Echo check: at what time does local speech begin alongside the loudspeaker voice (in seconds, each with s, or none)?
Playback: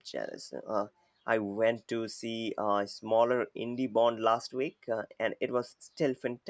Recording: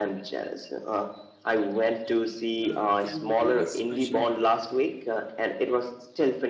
2.6 s